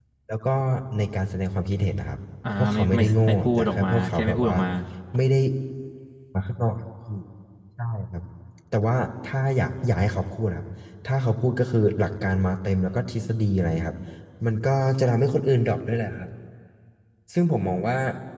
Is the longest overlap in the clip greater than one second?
Yes, from 2.4 s

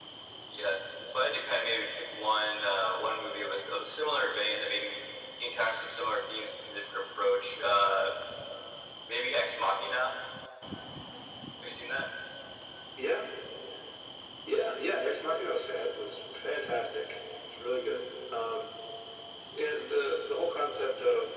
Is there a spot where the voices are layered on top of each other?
No

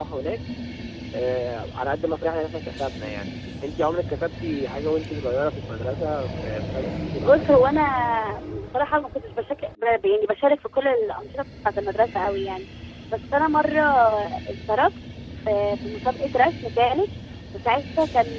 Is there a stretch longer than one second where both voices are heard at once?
No

